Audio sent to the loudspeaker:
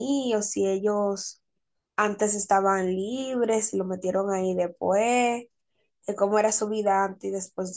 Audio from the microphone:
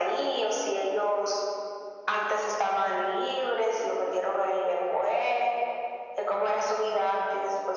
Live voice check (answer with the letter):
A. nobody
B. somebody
A